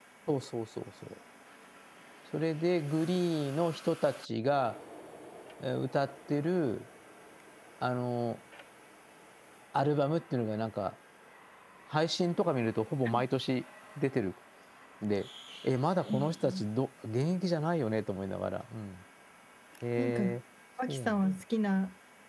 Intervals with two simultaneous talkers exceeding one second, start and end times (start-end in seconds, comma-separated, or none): none